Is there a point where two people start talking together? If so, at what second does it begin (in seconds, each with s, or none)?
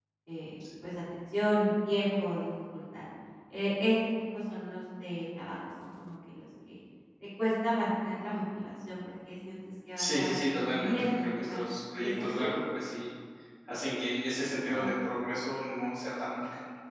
10.0 s